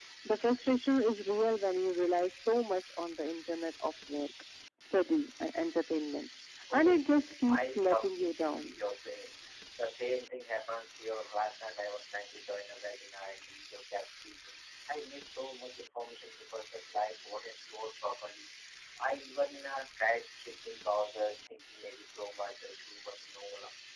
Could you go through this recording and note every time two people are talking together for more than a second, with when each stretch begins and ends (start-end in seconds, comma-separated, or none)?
7.5-8.8